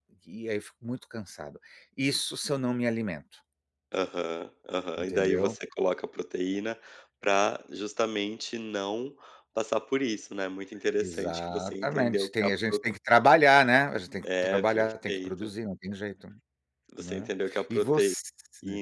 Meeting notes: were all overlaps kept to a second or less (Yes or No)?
No